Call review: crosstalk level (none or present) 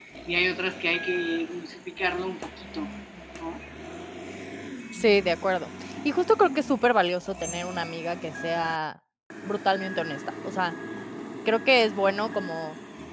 none